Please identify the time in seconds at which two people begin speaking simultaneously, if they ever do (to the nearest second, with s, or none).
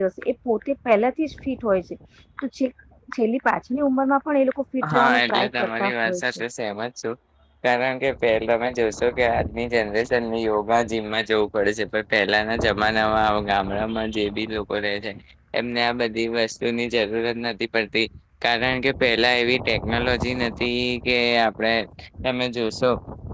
5 s